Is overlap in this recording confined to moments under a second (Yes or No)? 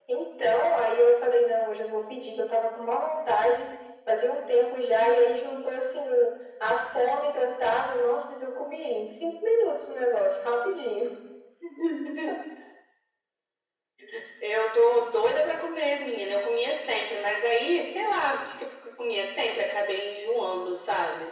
Yes